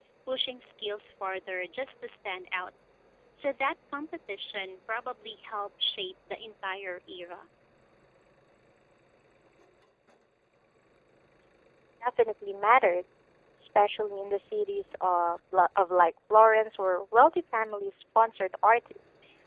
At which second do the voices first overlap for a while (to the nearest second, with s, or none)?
none